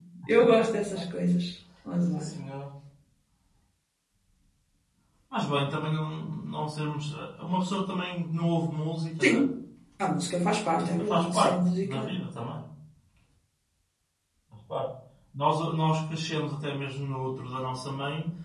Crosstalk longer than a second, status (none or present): present